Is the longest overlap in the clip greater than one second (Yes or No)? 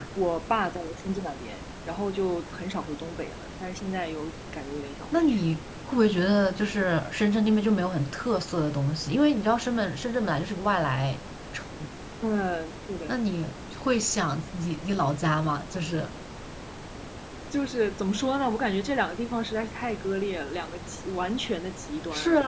No